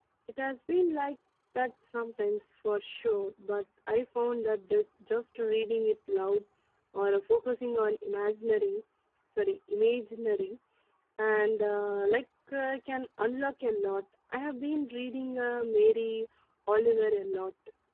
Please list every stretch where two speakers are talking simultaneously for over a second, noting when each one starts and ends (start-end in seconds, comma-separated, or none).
none